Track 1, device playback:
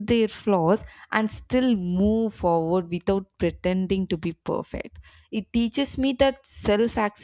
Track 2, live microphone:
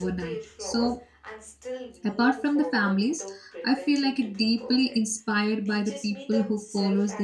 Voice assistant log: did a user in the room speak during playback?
Yes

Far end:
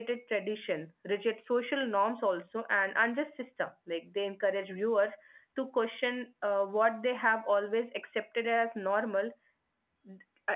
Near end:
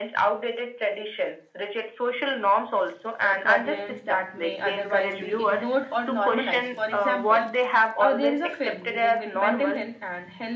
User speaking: Yes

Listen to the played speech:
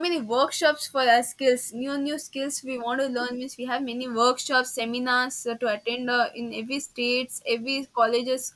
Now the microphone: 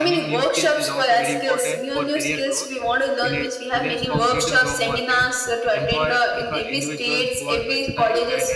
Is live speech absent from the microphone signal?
No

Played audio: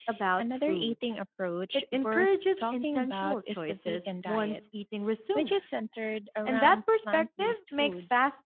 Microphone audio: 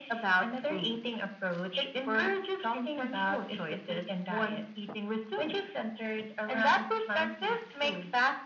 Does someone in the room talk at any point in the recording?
No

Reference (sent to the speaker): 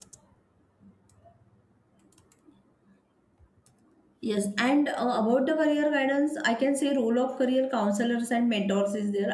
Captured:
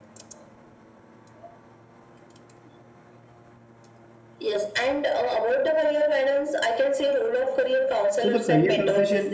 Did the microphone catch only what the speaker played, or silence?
No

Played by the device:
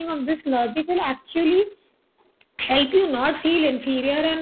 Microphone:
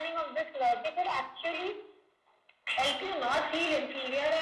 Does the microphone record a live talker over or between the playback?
No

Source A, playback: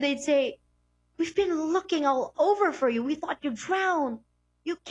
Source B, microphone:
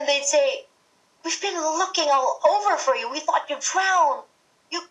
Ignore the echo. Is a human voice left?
No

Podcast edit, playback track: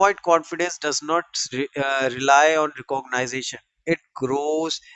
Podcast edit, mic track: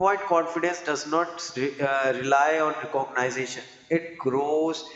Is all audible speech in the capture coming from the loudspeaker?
Yes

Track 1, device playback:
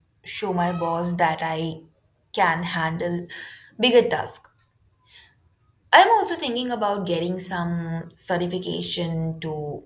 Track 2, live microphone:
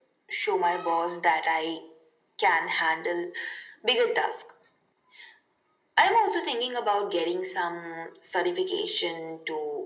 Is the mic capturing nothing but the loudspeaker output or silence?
Yes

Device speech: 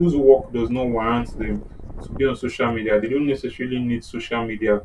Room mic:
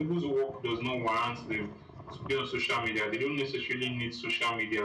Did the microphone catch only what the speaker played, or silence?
Yes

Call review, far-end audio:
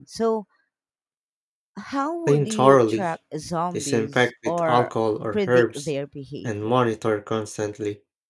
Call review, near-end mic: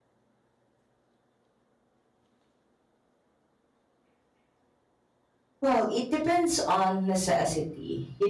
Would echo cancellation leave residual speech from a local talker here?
Yes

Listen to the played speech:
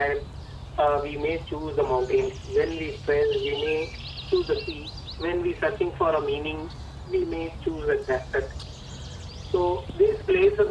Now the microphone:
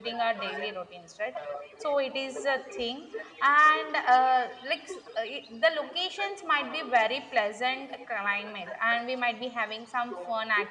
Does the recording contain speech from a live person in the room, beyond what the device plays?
Yes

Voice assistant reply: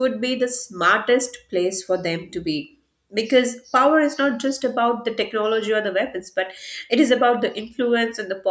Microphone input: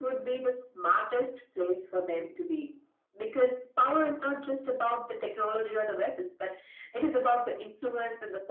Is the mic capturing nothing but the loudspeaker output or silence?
Yes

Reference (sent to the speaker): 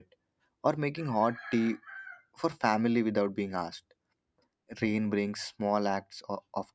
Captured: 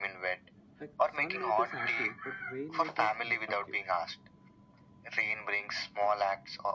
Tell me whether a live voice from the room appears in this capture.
Yes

